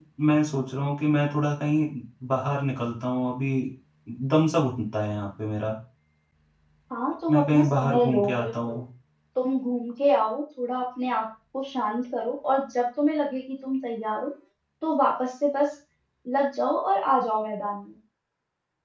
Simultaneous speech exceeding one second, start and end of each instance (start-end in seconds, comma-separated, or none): 7.3-8.8